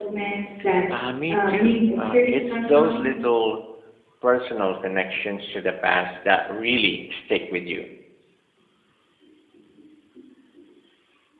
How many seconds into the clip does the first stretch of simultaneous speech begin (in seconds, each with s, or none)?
1.3 s